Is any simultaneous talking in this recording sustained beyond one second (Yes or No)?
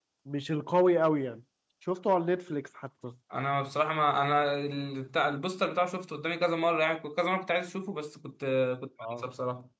No